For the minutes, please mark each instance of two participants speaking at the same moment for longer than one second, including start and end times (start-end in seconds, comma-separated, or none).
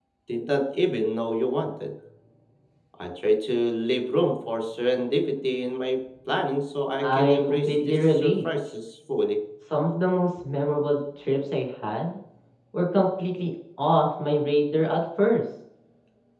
7.0-8.4